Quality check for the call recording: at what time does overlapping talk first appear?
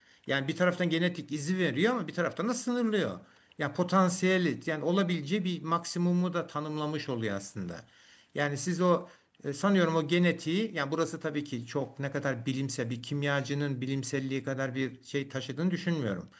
none

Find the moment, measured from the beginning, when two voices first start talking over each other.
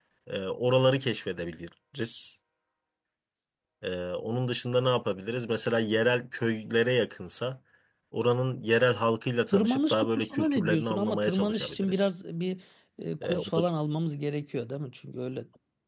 9.5 s

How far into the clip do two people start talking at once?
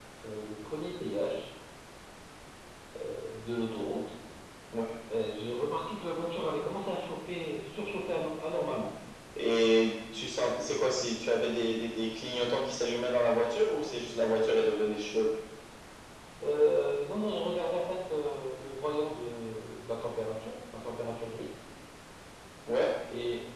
none

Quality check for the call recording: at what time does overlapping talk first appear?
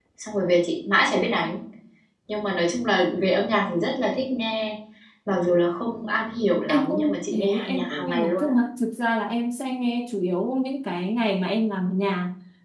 6.7 s

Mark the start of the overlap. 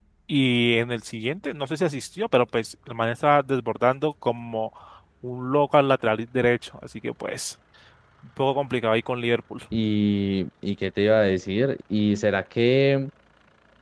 none

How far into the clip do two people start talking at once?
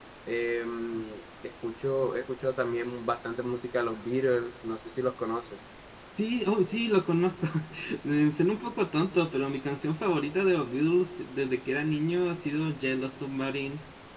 none

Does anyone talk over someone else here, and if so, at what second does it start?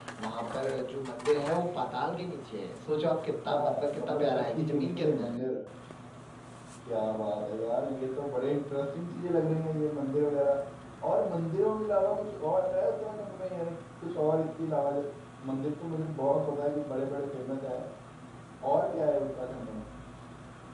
3.5 s

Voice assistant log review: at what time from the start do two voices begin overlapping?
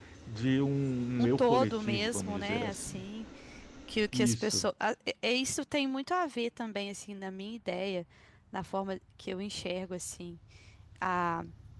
1.2 s

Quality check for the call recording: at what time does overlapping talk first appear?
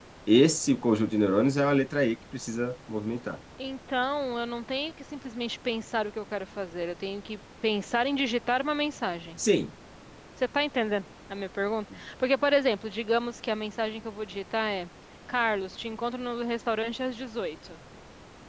none

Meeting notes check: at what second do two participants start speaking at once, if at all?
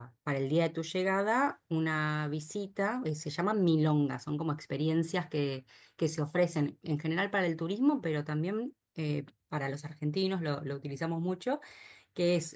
none

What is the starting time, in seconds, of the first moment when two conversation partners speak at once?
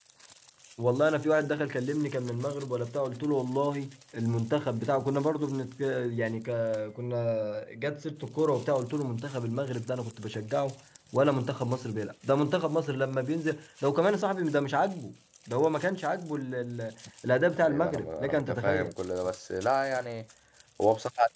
17.5 s

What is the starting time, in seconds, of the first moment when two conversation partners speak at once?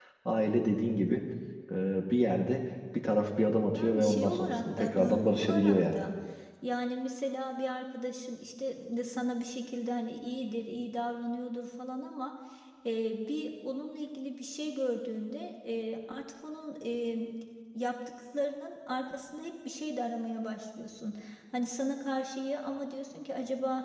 3.6 s

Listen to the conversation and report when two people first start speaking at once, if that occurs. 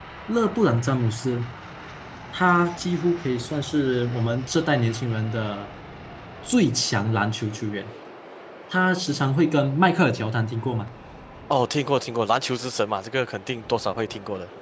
none

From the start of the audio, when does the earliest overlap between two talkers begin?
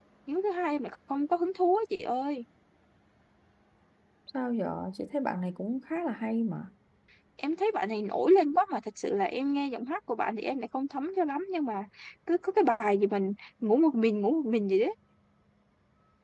none

